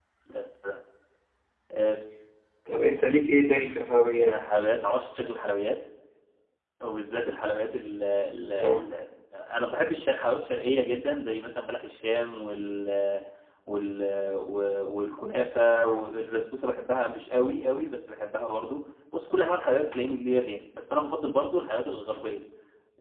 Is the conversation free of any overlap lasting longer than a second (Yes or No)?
Yes